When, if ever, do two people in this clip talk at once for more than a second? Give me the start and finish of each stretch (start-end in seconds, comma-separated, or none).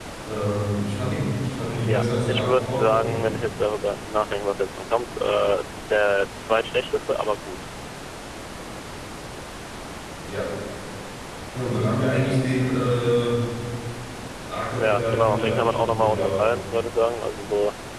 1.7-3.4, 14.8-16.4